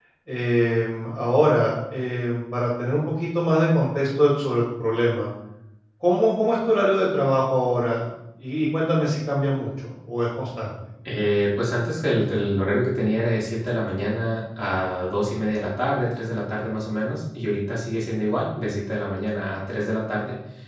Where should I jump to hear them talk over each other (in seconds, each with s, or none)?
none